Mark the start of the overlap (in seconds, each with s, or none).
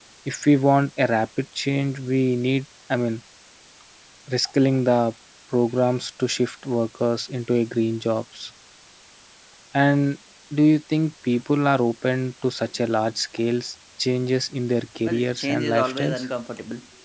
15.0 s